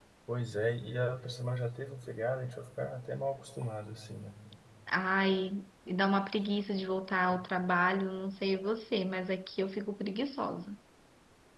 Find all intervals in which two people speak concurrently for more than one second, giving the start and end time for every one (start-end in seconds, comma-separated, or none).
none